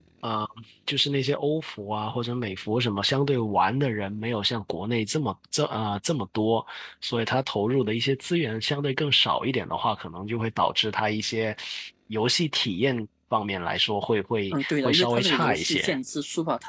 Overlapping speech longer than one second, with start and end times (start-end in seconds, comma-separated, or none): 14.5-16.0